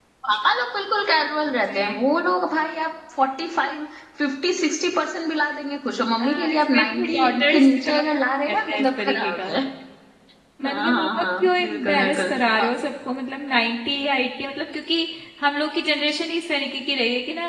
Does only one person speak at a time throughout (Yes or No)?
No